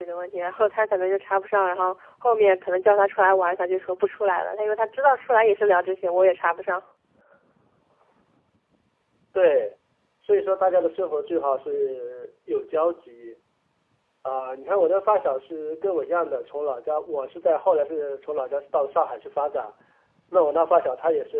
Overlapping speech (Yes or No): No